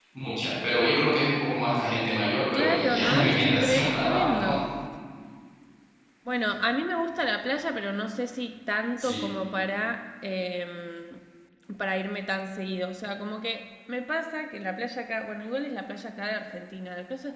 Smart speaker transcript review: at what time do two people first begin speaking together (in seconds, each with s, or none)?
2.5 s